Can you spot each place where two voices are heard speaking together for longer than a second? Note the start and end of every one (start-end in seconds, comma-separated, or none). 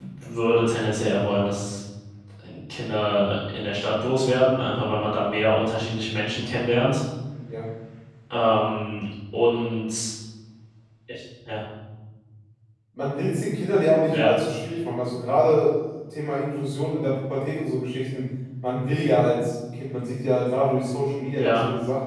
none